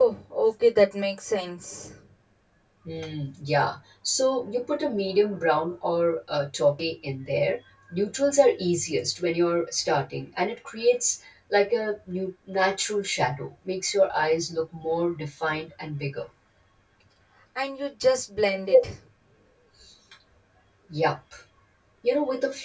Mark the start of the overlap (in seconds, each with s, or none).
none